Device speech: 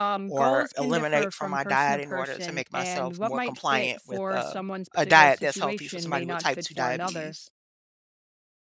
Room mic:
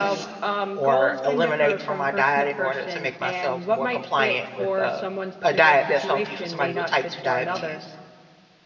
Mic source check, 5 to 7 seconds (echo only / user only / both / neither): echo only